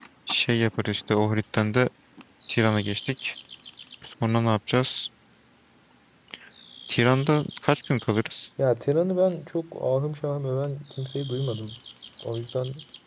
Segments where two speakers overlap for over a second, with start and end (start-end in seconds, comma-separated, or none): none